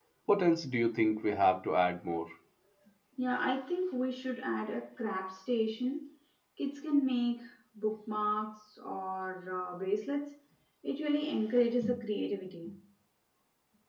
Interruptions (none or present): none